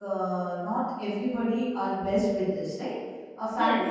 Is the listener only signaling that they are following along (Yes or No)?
Yes